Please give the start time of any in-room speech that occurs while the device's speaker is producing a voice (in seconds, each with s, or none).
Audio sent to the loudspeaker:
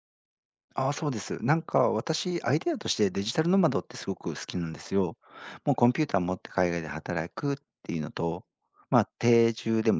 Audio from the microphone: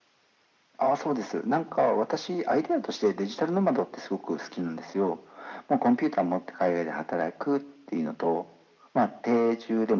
none